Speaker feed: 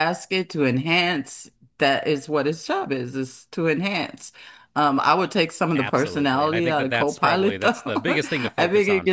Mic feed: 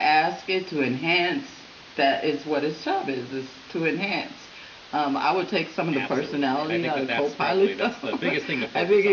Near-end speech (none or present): none